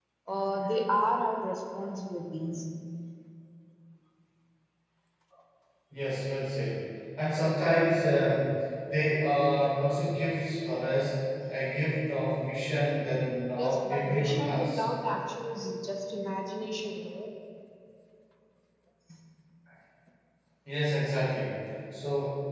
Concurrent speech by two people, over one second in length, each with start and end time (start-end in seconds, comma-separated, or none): 13.6-14.8